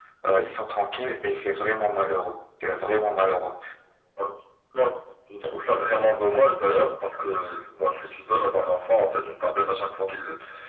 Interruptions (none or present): none